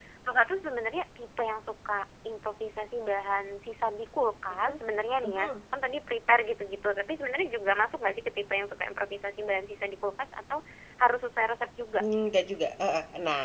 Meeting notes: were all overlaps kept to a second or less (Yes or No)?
Yes